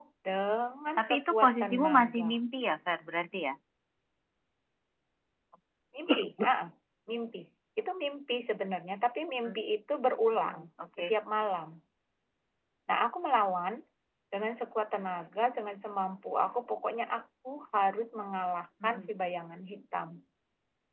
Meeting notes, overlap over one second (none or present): present